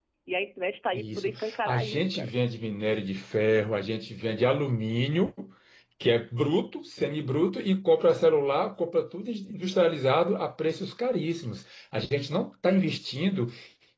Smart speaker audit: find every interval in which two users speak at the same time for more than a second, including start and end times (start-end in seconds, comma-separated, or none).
0.9-2.3